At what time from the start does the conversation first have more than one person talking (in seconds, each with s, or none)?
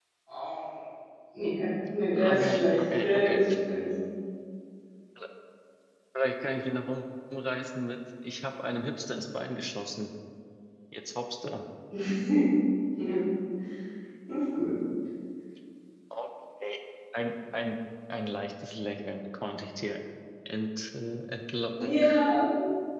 2.2 s